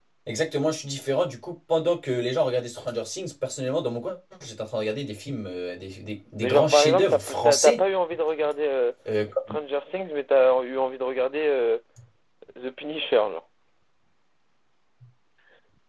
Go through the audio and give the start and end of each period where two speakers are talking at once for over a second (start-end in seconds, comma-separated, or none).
6.4-7.8